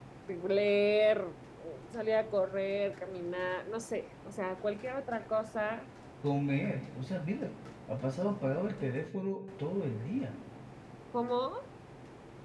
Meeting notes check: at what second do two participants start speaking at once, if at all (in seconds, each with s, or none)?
none